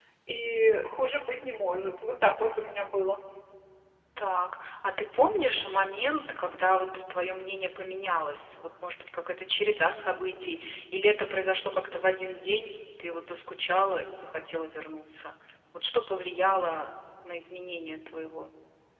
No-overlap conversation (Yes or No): Yes